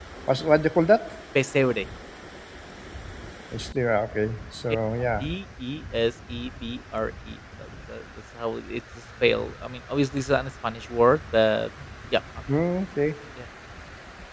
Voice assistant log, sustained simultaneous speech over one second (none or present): none